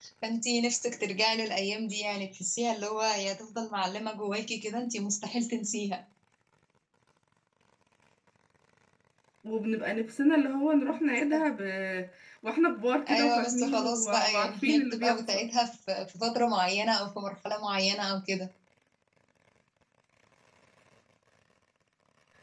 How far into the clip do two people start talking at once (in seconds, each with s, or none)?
13.1 s